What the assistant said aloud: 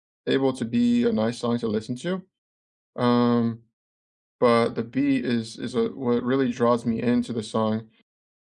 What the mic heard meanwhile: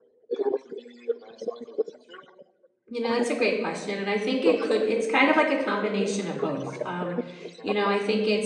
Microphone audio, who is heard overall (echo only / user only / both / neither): both